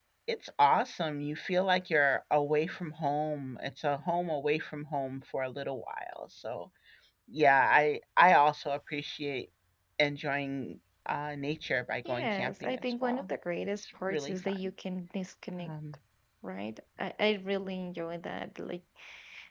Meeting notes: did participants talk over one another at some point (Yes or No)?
Yes